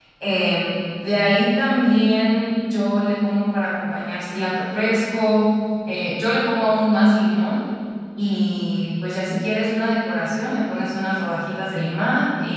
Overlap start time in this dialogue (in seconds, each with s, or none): none